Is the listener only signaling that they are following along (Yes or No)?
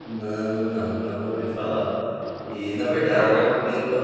Yes